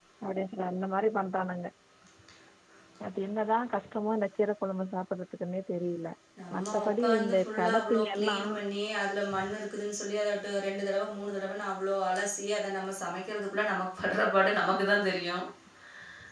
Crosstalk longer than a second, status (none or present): present